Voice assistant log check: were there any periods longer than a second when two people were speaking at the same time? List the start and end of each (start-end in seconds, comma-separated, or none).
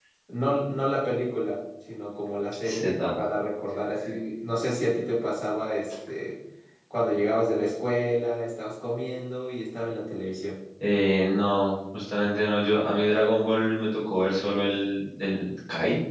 none